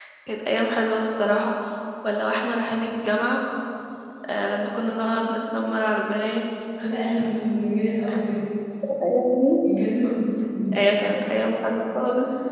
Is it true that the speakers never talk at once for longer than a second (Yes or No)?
Yes